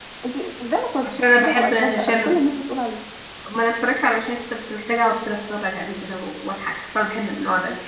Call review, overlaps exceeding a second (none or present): present